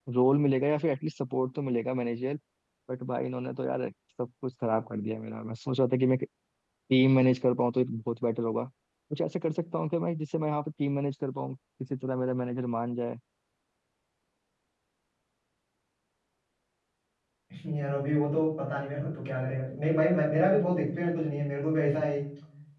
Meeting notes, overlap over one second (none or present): none